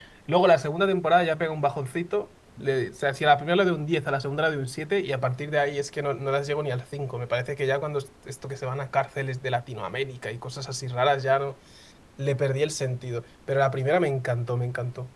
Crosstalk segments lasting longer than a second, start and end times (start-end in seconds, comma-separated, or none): none